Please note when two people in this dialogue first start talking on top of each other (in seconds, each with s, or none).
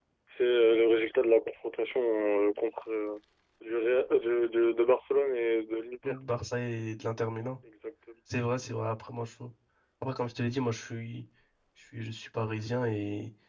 none